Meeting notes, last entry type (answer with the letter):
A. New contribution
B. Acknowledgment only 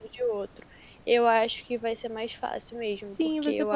A